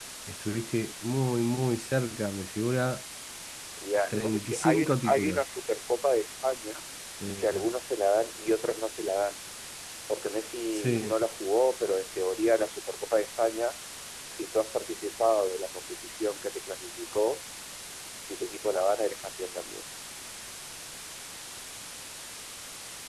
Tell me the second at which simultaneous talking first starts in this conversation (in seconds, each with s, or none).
4.1 s